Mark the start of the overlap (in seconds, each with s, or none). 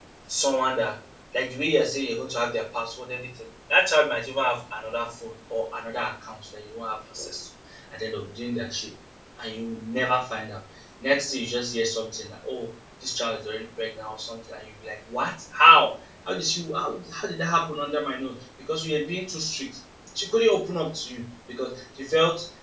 none